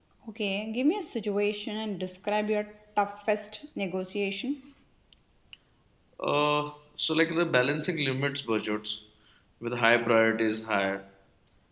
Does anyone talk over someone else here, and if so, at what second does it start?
none

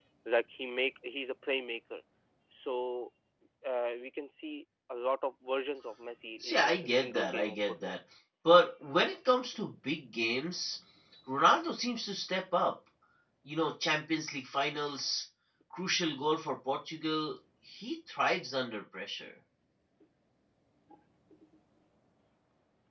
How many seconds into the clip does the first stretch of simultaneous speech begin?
6 s

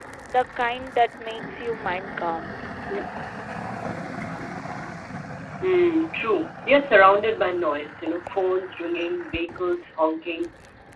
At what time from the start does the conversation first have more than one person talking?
none

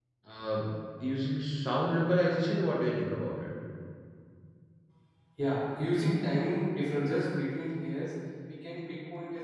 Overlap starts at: none

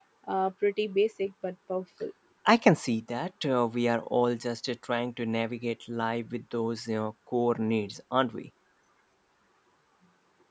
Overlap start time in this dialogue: none

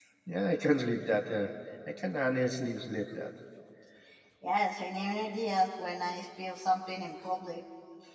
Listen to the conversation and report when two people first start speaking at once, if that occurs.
none

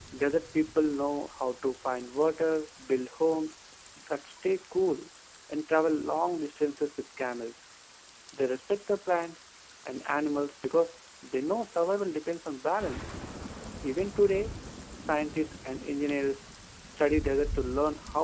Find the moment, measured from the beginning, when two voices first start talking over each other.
none

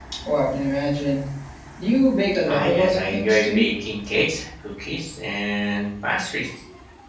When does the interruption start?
2 s

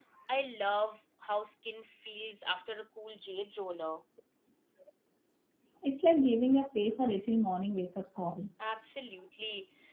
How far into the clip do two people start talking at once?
none

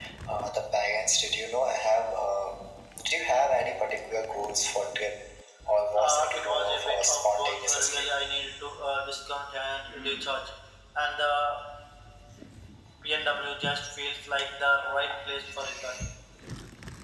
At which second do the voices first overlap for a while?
6 s

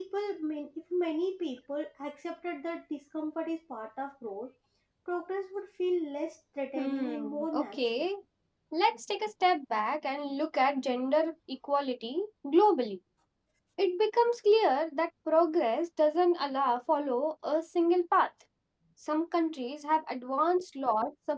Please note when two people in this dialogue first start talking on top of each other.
7 s

